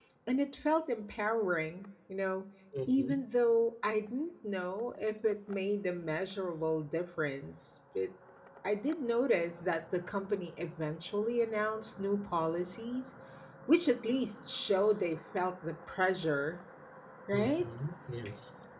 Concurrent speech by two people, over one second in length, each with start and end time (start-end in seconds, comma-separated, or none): none